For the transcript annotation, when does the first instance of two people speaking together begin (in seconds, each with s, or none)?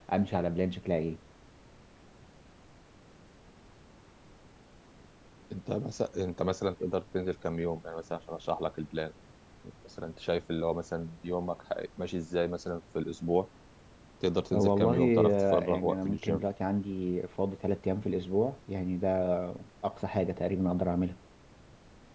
14.5 s